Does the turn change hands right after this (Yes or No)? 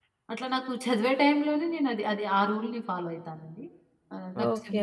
No